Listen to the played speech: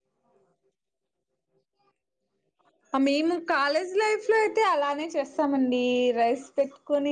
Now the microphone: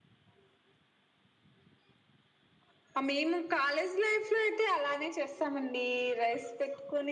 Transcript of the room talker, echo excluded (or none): none